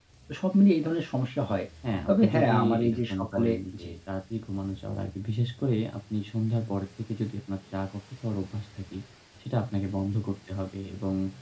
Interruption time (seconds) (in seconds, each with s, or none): 2.1 s